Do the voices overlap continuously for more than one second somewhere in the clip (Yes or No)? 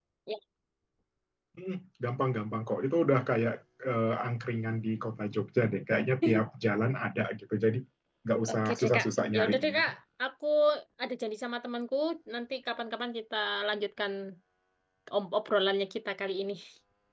Yes